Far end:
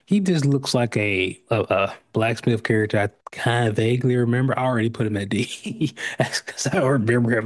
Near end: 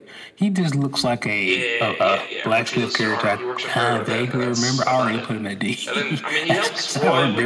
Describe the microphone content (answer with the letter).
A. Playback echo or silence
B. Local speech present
B